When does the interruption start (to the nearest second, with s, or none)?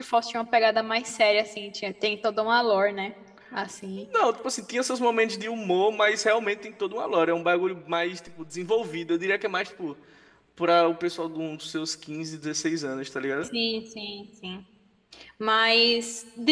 none